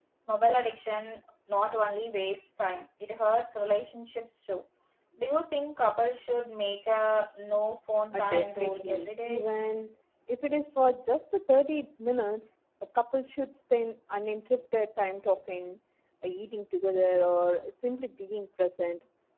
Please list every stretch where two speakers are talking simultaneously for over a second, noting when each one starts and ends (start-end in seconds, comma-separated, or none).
8.1-9.5